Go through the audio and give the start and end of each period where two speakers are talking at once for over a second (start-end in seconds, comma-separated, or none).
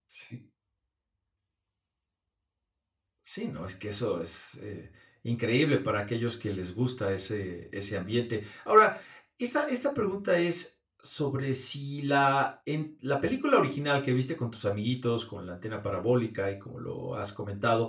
none